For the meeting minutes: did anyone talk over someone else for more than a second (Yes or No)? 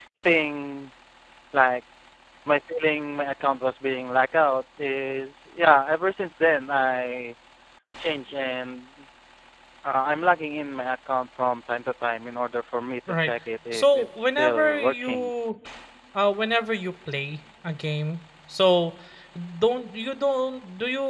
Yes